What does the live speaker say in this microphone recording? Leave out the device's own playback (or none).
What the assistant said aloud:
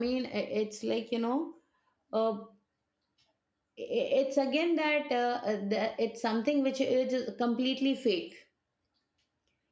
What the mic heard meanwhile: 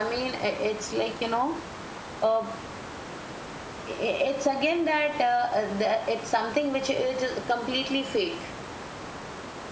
none